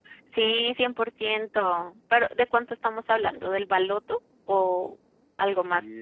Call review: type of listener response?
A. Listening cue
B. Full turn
B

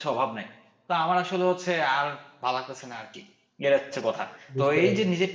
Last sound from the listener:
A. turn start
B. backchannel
B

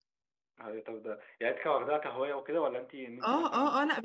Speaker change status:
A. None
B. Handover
B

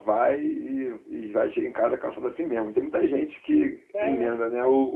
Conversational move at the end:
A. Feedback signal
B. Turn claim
A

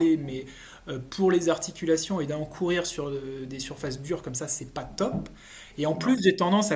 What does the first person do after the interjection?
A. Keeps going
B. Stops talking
A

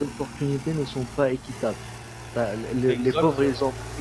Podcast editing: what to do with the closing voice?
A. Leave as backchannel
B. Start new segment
A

